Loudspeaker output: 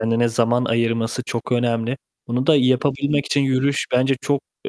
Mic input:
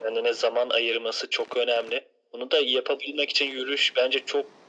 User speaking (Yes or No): No